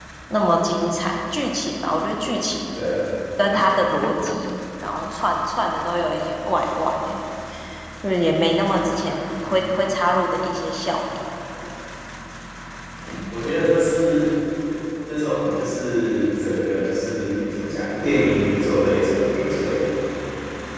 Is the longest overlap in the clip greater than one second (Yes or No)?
No